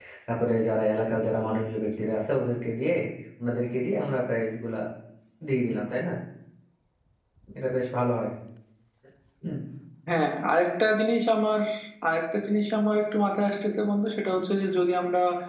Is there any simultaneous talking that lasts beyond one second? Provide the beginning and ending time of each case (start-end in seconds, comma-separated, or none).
none